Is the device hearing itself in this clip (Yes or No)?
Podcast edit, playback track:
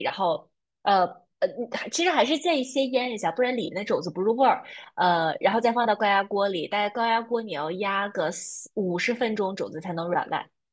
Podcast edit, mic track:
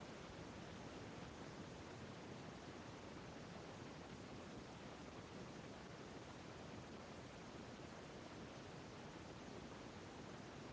No